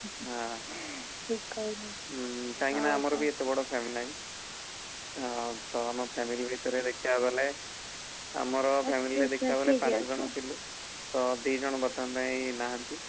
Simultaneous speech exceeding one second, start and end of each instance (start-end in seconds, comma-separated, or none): 8.9-10.2